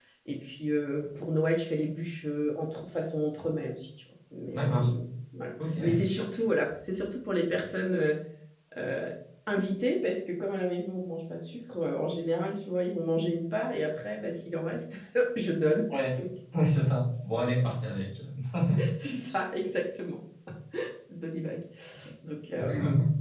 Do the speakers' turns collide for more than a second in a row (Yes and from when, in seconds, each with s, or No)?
No